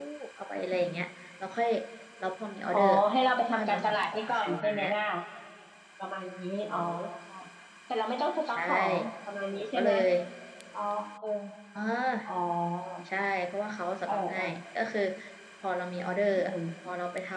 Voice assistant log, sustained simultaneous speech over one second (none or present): present